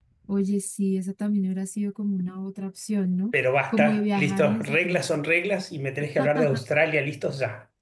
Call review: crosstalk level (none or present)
present